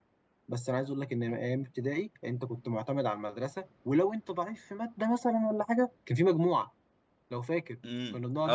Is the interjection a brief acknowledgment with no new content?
No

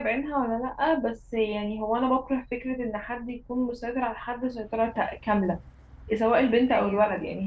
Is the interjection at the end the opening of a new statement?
No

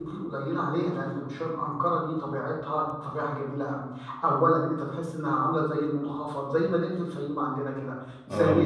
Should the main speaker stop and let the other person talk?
No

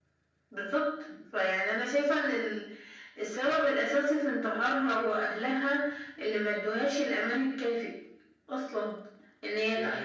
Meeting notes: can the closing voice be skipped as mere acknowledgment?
No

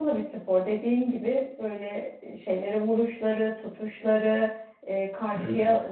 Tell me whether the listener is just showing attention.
Yes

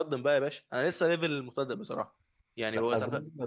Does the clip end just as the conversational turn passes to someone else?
Yes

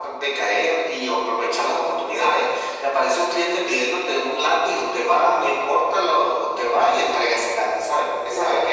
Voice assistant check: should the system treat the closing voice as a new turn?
Yes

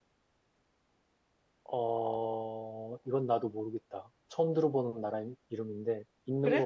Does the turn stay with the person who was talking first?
No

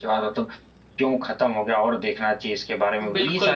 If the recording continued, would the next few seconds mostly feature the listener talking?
Yes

